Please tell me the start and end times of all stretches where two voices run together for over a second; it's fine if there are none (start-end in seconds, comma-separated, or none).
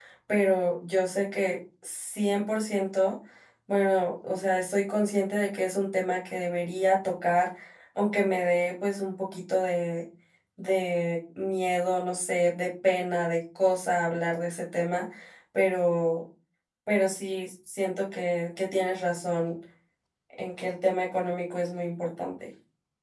none